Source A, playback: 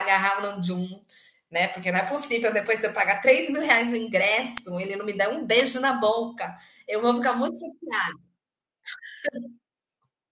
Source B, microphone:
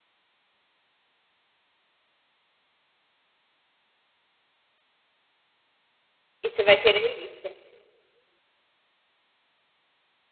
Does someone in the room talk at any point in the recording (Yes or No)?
Yes